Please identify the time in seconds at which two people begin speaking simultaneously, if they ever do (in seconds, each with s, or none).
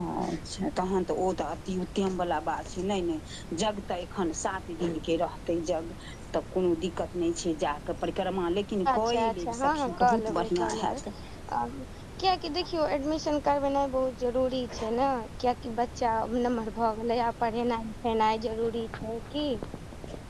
8.8 s